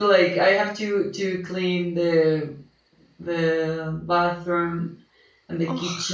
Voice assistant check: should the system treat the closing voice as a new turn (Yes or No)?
No